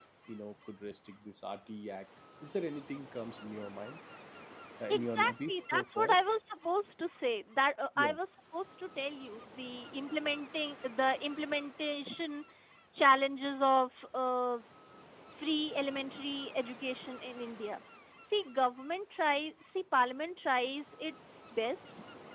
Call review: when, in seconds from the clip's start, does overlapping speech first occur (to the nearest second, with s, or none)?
5 s